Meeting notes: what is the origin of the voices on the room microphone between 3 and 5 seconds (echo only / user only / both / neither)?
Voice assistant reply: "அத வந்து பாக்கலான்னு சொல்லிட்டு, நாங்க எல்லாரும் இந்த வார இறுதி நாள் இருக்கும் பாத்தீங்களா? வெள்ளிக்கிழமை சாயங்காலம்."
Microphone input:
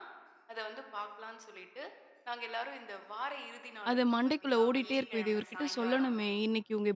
both